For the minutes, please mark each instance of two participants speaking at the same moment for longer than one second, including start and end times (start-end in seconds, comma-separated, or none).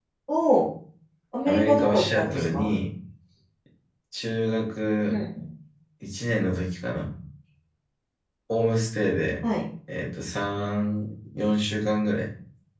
1.4-2.7